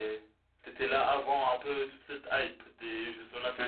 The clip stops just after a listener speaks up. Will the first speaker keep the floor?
No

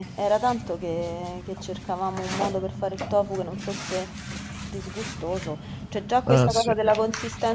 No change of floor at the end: Yes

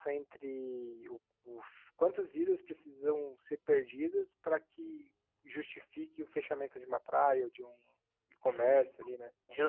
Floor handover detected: Yes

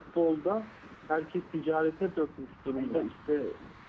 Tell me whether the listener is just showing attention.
Yes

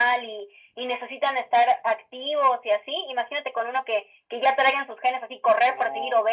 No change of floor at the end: Yes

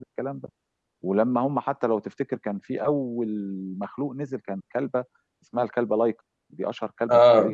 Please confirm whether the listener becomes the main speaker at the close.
No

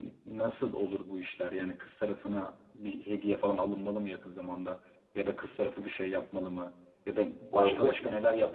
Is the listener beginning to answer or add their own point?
No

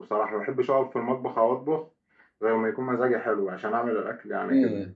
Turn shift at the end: Yes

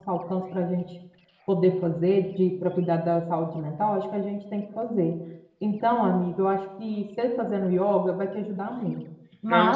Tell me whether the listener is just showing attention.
Yes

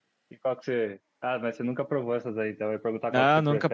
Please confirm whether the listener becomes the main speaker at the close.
Yes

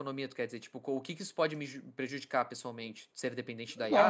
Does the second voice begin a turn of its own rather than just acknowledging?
Yes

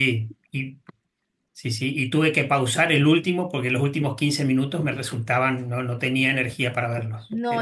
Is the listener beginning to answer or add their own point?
Yes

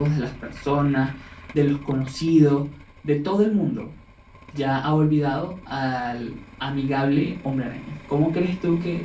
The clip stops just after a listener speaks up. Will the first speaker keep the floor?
Yes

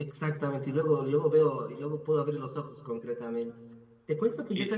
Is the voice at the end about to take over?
No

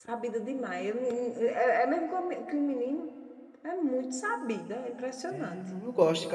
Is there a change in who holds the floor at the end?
Yes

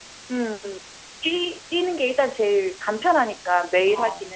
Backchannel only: No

